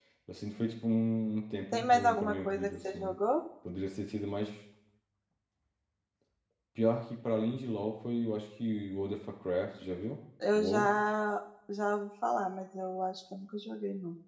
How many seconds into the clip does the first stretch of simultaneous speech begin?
1.7 s

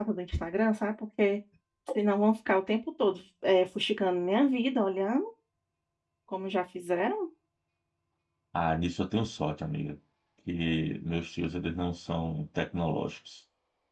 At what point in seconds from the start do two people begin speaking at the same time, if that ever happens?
none

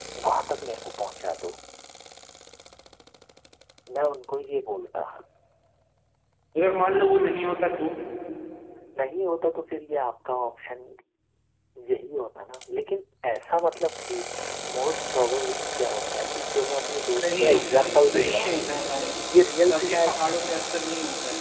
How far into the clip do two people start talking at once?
17.2 s

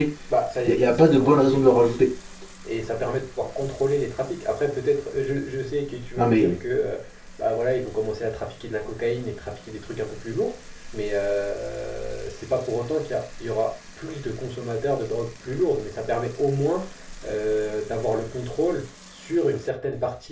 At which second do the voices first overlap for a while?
0.7 s

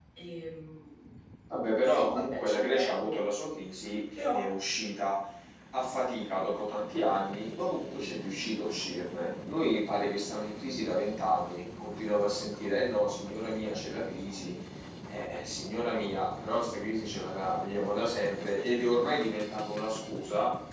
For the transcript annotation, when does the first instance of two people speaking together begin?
1.8 s

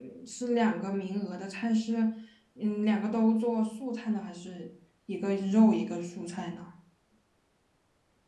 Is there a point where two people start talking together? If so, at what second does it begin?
none

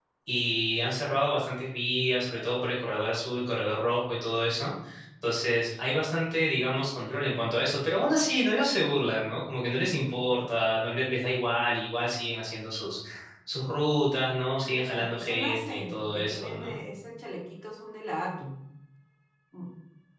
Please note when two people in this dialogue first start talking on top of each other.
14.7 s

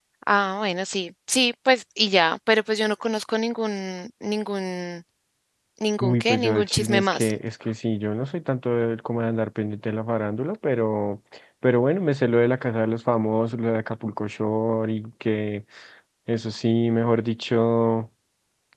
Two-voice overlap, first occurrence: 6.0 s

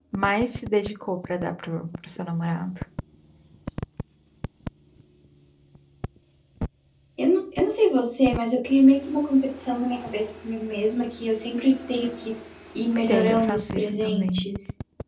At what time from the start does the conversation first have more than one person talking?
13.0 s

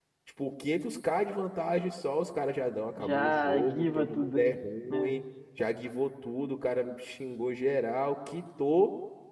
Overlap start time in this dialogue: 3.0 s

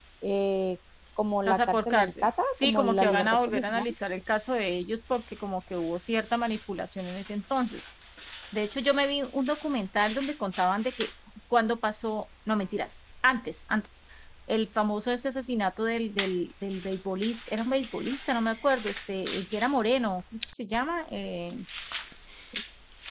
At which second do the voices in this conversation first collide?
1.5 s

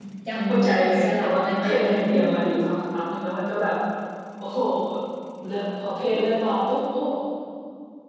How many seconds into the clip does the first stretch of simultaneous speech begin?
0.7 s

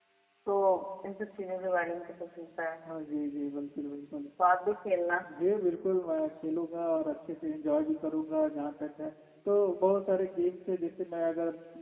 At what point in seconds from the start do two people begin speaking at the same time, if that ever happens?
none

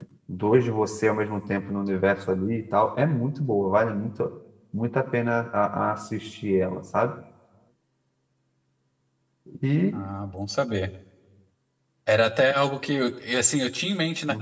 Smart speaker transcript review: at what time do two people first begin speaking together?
none

